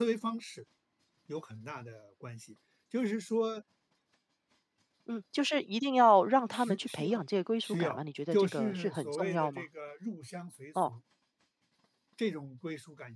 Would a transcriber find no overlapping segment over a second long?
No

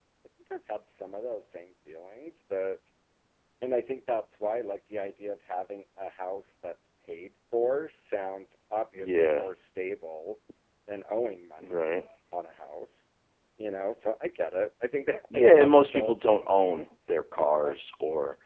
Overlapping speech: Yes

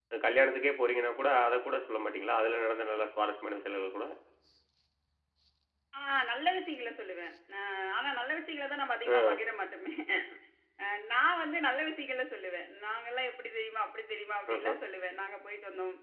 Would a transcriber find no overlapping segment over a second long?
Yes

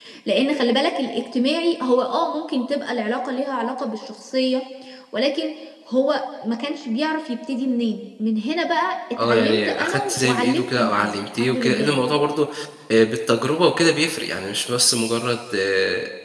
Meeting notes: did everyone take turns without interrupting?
No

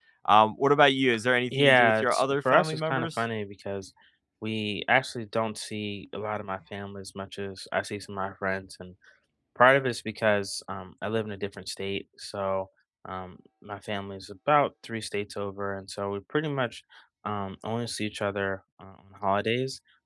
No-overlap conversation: No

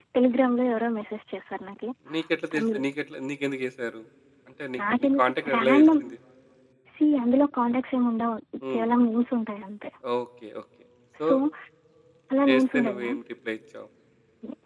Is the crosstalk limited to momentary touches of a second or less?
No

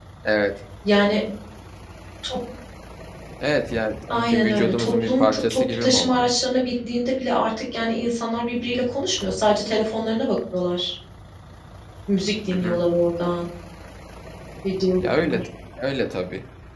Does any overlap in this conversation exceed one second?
Yes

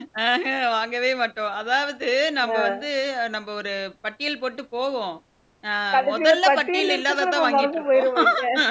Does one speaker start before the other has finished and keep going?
Yes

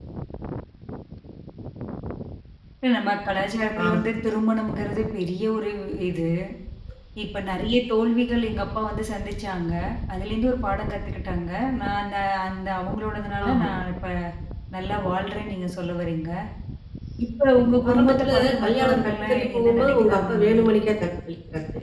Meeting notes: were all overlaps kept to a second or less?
No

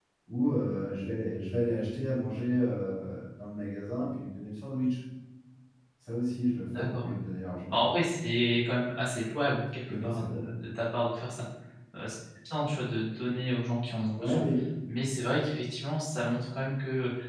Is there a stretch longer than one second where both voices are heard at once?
No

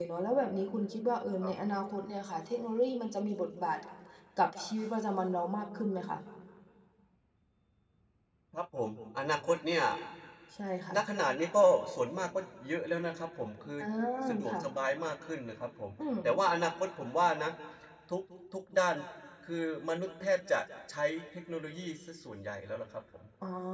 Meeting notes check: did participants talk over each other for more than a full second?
No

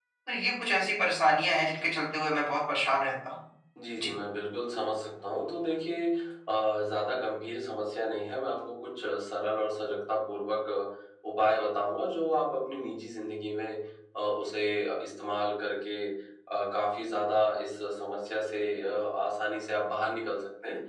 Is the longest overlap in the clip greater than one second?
No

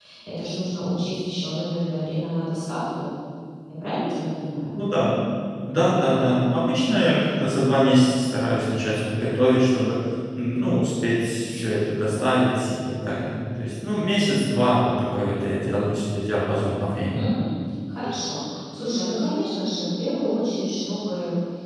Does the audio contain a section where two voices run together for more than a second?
No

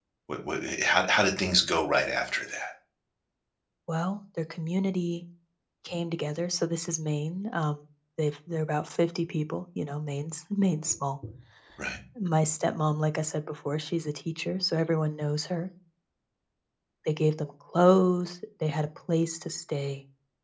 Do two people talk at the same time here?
No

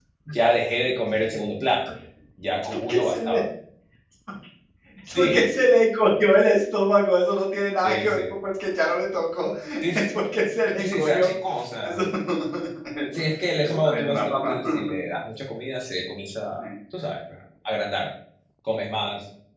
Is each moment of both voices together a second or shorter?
No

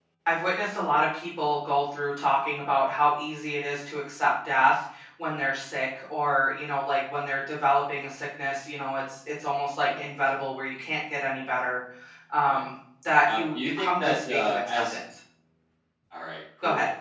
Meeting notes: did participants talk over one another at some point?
Yes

